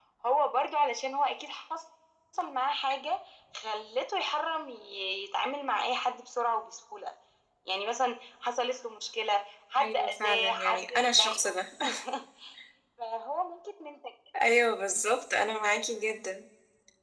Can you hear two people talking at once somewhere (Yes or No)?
Yes